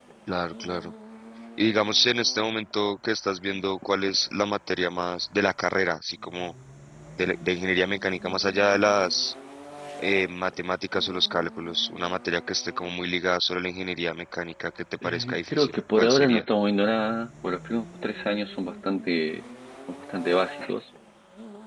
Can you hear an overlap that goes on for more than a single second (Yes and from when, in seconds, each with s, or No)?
Yes, from 15.0 s